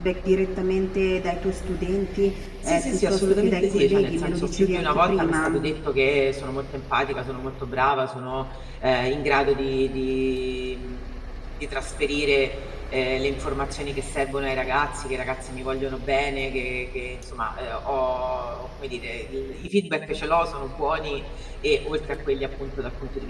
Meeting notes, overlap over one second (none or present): present